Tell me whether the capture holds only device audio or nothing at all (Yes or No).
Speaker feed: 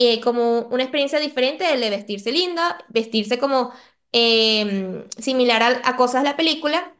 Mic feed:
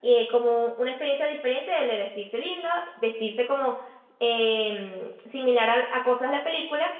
Yes